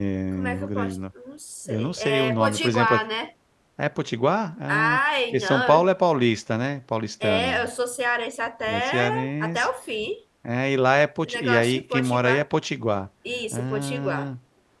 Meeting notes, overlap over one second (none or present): present